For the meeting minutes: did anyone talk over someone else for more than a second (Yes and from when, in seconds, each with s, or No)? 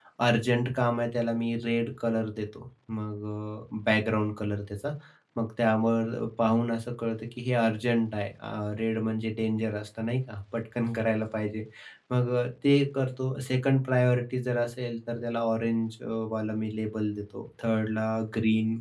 No